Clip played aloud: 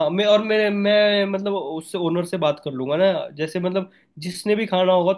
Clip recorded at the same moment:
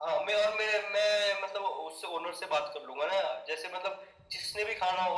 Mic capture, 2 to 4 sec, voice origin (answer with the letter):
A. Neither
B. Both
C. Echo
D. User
C